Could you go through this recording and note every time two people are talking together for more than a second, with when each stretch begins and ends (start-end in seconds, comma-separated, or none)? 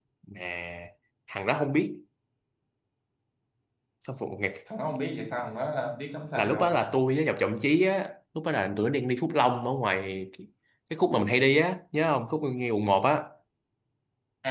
none